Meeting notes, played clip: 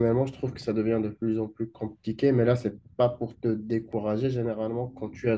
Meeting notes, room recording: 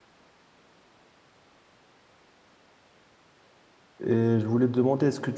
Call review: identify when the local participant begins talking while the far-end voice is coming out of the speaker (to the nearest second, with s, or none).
4 s